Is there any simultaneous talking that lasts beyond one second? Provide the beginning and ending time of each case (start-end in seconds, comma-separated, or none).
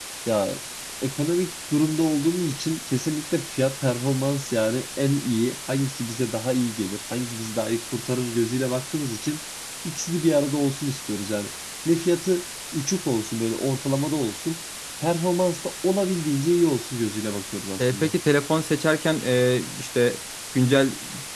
none